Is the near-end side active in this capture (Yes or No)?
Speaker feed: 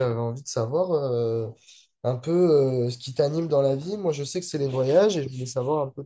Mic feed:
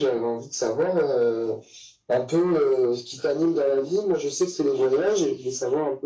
No